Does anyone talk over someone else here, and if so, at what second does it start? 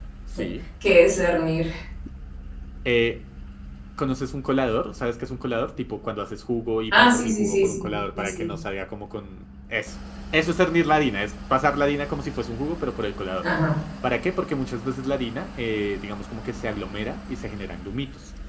6.9 s

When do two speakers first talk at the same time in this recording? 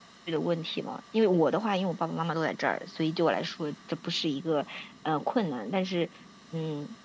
none

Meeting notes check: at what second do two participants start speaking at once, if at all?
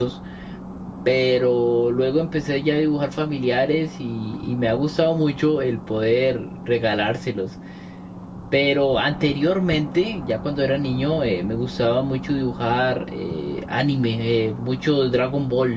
none

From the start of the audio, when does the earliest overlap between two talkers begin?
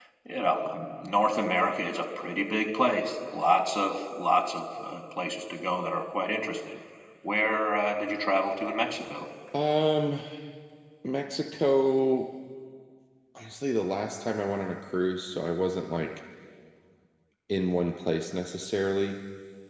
none

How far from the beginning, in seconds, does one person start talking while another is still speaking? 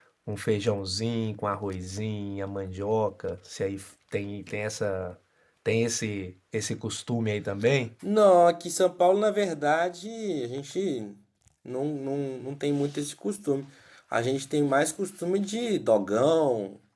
none

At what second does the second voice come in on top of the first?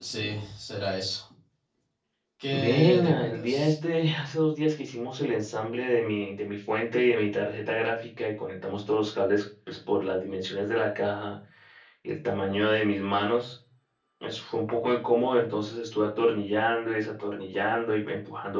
2.5 s

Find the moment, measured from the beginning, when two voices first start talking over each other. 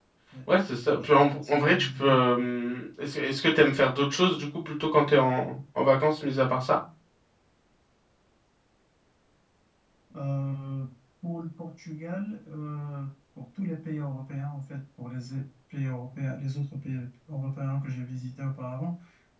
0.8 s

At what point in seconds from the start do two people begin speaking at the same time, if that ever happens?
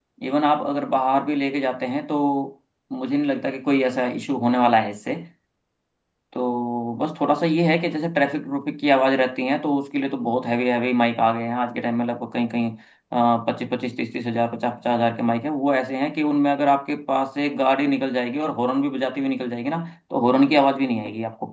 none

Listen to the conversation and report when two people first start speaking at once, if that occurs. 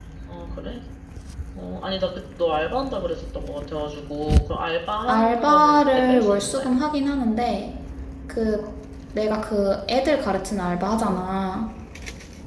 5.1 s

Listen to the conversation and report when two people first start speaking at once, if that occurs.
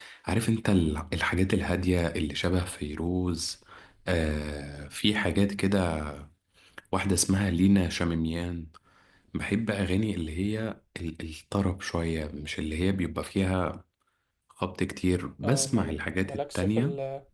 15.4 s

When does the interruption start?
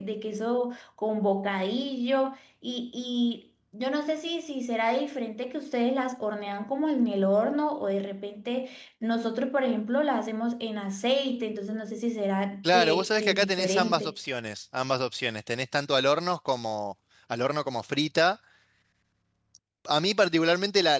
12.6 s

